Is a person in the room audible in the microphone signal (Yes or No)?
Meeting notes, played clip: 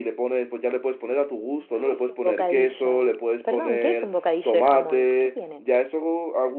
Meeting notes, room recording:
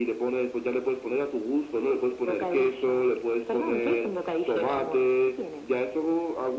No